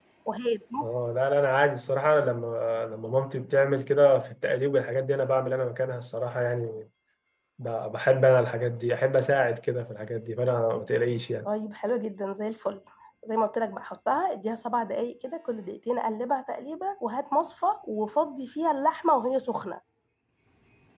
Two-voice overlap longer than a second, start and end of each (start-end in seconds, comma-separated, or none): none